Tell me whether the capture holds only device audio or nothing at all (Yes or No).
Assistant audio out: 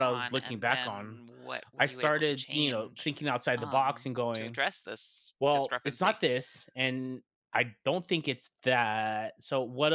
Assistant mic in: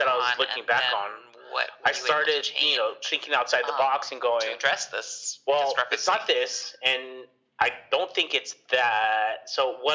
Yes